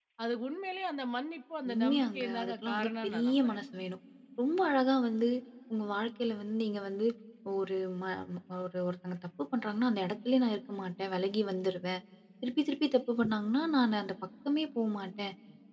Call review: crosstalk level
present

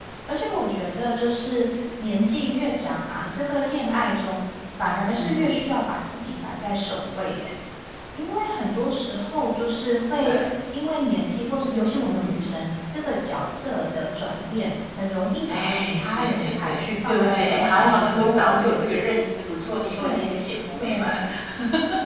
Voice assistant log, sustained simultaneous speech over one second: present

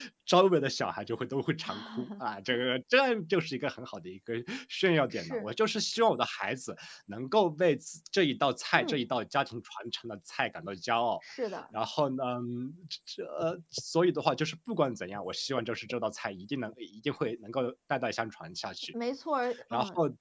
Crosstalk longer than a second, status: none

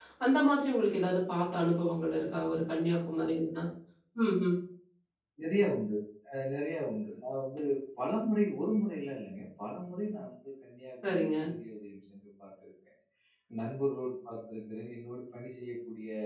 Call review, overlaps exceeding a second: none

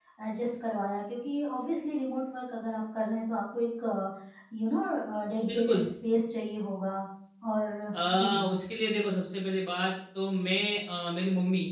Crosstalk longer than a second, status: none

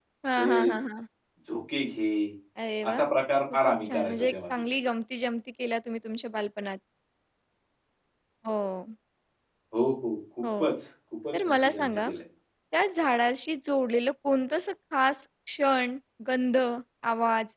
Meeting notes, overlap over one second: present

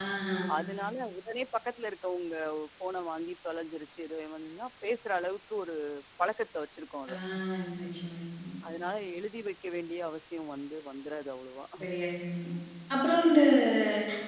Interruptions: none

